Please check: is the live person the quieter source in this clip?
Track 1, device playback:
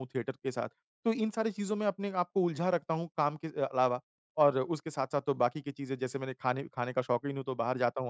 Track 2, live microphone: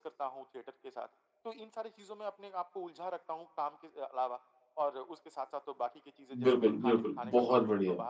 No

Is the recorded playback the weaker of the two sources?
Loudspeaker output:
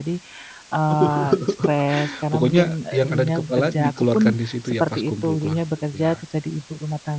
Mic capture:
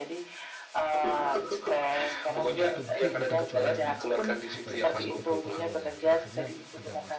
No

